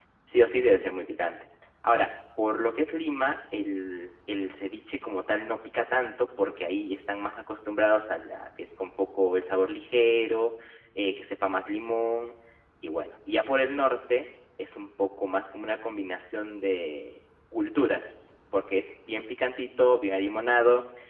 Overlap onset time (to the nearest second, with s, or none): none